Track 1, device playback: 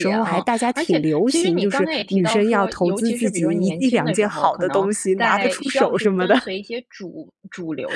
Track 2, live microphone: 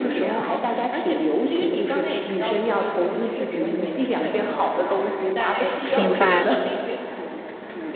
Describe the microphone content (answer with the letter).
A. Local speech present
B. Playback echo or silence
A